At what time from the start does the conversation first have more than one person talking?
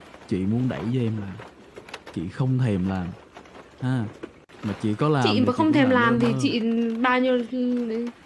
5.2 s

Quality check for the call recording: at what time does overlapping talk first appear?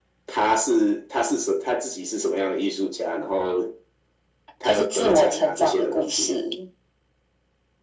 4.6 s

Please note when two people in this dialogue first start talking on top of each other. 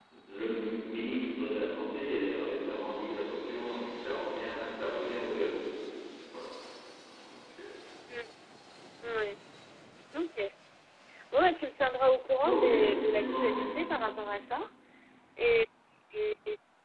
12.4 s

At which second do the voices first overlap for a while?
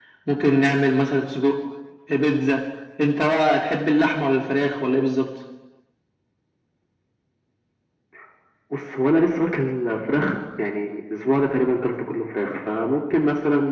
none

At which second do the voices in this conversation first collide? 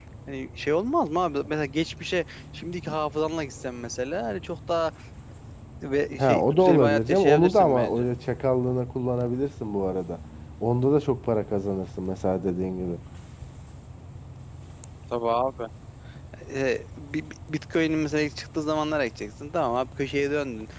6.2 s

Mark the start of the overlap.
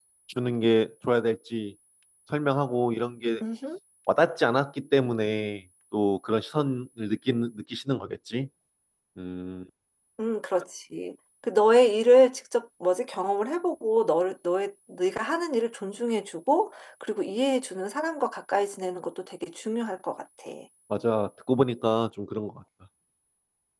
none

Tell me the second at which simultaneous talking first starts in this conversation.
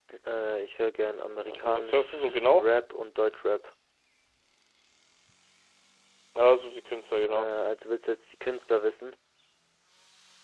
1.4 s

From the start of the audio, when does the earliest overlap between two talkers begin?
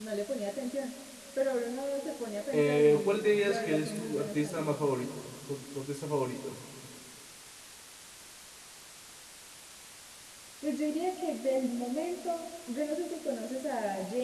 2.5 s

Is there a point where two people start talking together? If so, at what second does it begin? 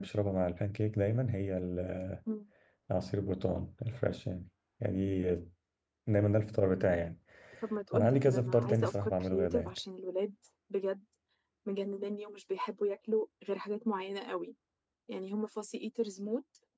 7.9 s

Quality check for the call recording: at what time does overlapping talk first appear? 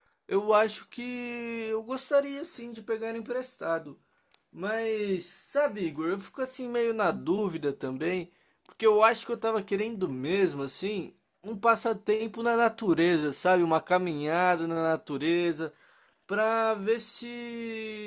none

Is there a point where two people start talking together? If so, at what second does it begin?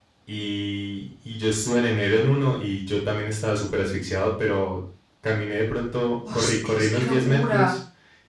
6.2 s

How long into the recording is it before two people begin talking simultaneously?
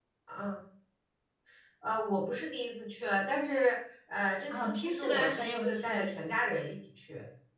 4.5 s

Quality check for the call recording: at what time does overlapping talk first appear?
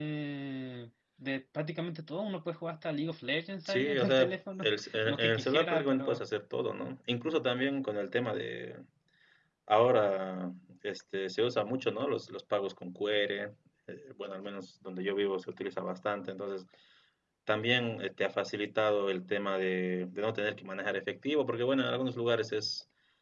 3.6 s

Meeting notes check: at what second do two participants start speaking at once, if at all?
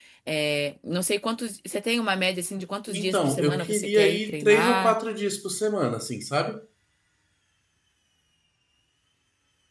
2.9 s

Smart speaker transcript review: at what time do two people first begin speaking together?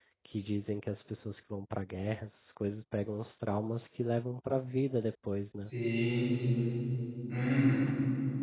none

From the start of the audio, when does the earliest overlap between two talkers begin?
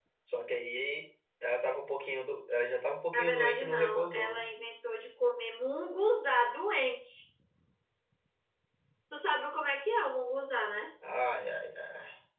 3.1 s

